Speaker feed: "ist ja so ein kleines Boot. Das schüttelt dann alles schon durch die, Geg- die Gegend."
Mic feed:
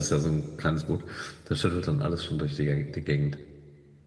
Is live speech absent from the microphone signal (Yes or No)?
Yes